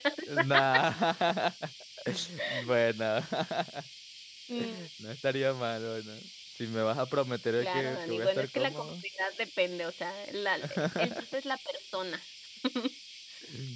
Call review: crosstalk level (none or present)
present